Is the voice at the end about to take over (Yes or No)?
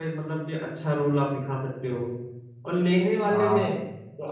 No